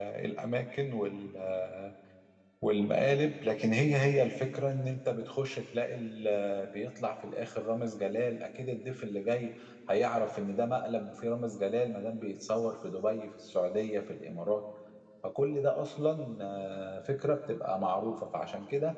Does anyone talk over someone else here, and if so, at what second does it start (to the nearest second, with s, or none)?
none